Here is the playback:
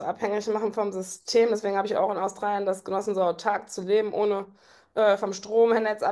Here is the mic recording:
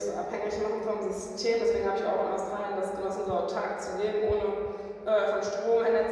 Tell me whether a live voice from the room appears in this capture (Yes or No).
No